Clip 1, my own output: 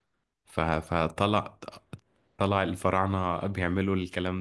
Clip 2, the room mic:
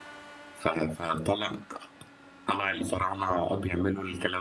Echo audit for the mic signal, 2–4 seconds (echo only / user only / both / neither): echo only